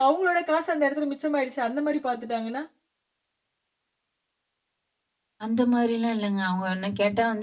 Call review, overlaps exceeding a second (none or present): none